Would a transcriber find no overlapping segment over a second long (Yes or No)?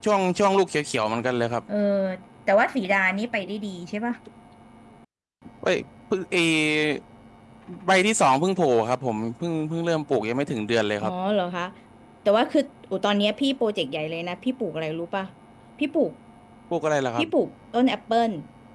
Yes